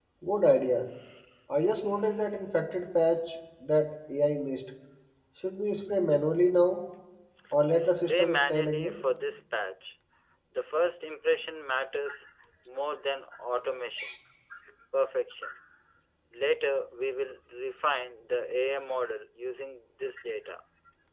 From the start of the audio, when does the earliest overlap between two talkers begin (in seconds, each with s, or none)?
7.8 s